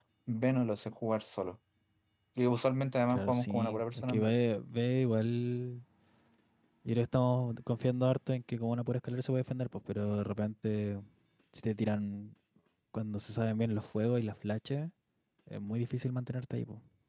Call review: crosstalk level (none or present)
present